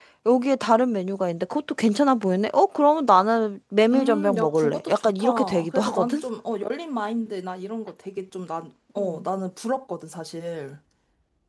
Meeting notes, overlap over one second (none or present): present